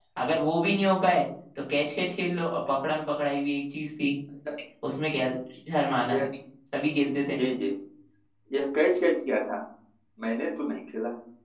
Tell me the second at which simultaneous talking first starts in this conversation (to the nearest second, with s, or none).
none